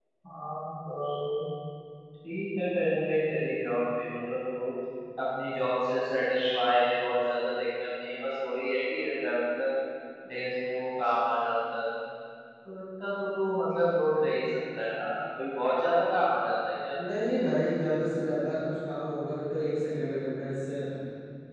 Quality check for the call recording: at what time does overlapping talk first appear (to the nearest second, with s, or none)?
none